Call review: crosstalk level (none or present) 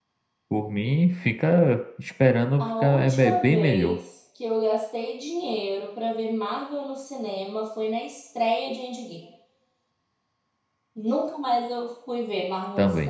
present